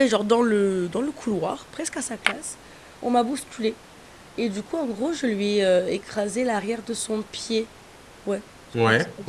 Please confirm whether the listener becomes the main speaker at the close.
No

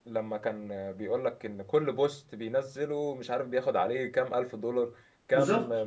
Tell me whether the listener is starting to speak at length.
No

